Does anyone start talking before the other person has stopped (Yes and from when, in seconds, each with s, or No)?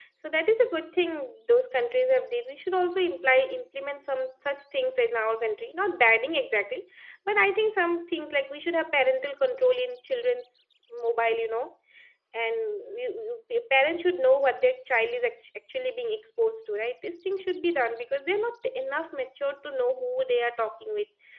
No